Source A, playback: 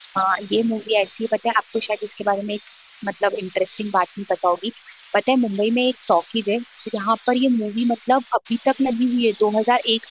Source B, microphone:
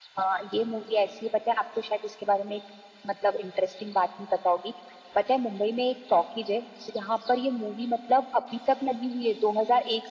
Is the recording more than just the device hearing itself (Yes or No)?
No